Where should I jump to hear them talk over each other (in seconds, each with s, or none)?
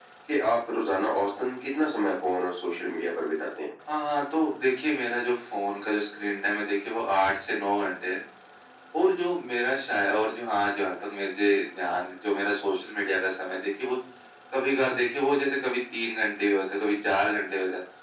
none